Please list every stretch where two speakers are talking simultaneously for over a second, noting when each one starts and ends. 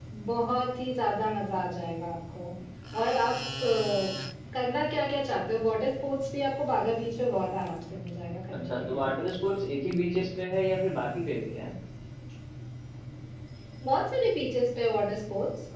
none

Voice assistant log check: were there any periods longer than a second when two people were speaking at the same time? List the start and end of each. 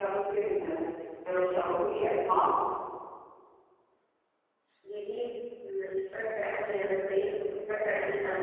none

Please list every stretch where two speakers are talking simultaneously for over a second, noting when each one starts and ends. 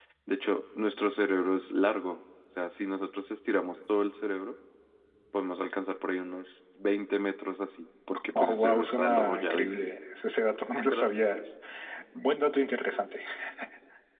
8.4-9.9

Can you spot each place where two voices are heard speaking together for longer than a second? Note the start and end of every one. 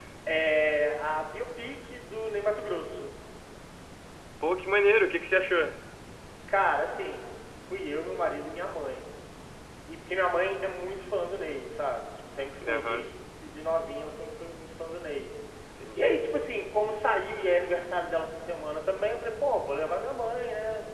none

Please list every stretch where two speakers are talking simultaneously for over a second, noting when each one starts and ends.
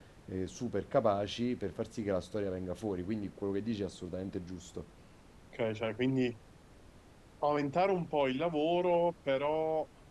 none

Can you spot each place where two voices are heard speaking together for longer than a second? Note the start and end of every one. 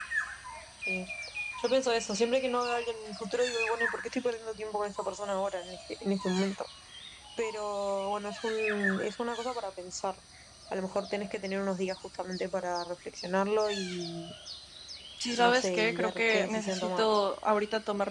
15.4-17.1

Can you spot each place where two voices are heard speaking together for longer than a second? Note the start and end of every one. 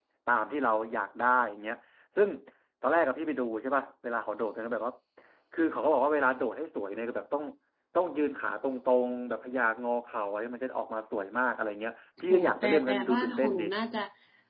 12.3-13.6

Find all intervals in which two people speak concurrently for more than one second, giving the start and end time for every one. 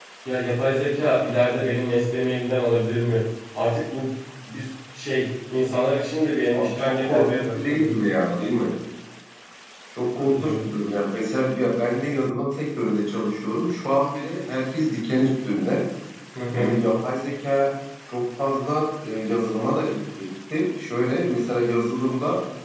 6.5-7.9

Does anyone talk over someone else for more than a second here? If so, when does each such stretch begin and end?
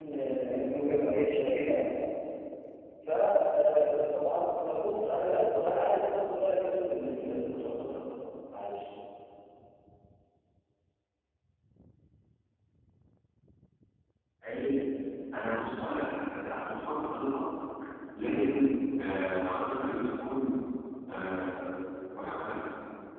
none

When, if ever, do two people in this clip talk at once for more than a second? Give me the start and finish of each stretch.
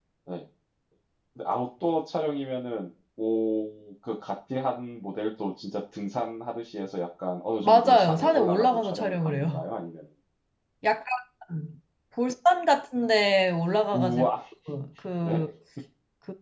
7.6-9.6

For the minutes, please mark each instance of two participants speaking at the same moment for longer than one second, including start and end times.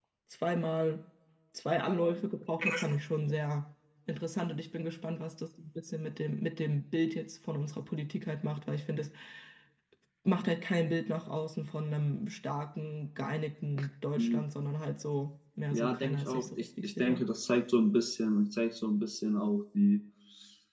15.7-17.2

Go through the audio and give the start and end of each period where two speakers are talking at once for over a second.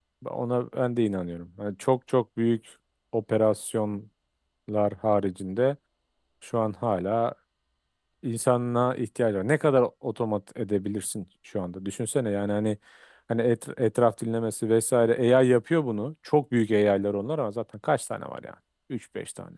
none

